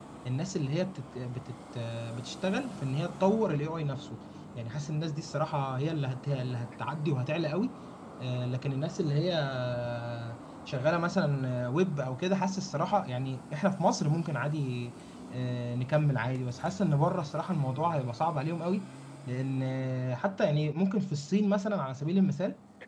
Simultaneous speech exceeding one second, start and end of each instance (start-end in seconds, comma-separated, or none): none